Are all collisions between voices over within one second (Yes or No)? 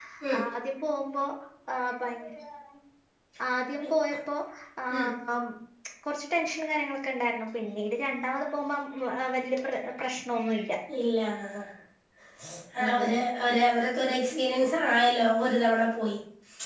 Yes